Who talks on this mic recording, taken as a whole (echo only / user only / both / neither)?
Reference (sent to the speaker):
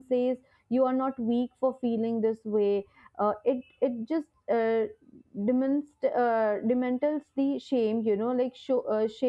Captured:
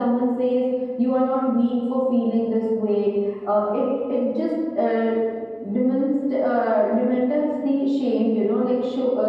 echo only